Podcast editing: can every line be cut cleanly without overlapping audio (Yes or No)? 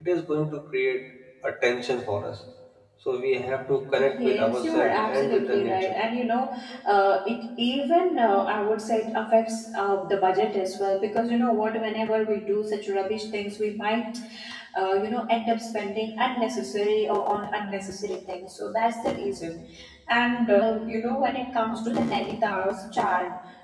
No